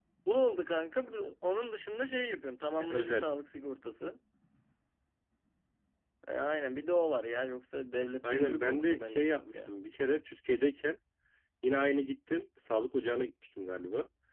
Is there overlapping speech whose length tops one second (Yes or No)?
Yes